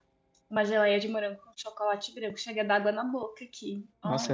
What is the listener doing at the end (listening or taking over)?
taking over